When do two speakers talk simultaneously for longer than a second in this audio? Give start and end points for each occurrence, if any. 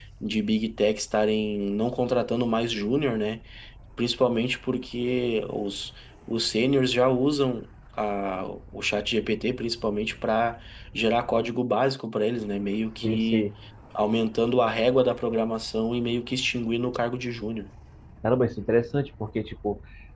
none

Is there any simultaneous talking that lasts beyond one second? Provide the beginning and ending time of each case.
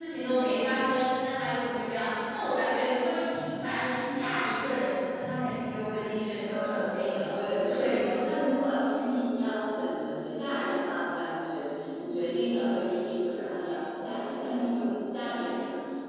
6.5-8.1

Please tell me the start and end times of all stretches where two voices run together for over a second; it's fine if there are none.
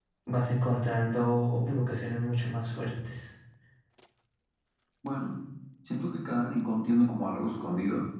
none

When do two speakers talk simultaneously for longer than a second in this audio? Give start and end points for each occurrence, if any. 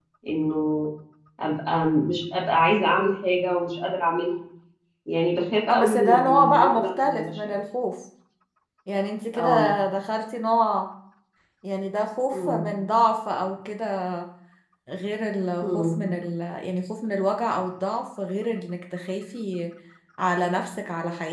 5.7-7.6

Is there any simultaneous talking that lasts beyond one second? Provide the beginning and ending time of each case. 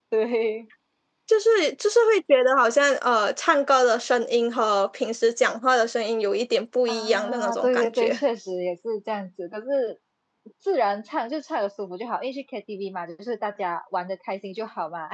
6.9-8.2

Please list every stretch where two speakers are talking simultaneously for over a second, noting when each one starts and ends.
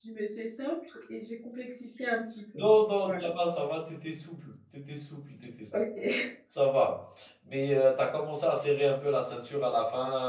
none

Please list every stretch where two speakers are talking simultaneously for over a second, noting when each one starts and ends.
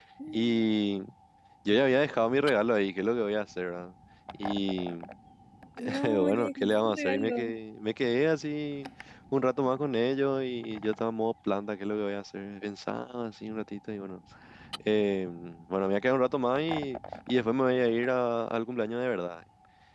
6.0-7.5

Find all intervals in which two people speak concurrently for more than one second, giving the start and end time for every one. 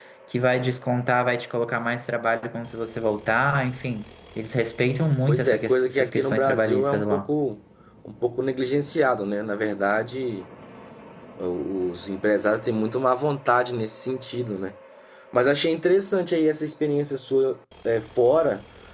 5.3-7.2

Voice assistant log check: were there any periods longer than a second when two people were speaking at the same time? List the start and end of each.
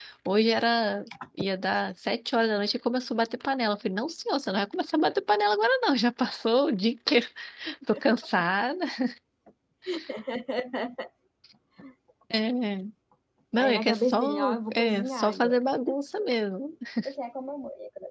13.6-15.6

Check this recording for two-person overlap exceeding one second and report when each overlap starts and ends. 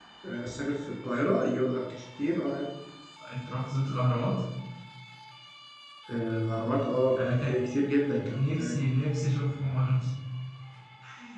none

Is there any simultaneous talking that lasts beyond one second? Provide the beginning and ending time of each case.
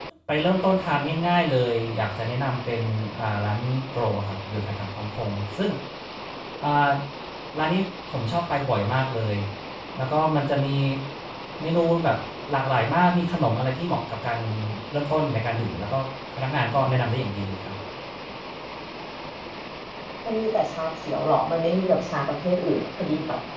none

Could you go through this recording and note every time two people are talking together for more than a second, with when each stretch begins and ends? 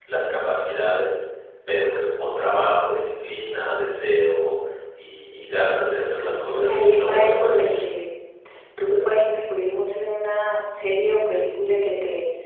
5.9-7.8

